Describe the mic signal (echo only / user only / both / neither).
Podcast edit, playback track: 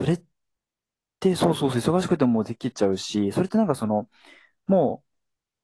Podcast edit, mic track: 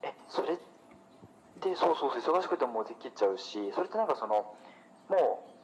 echo only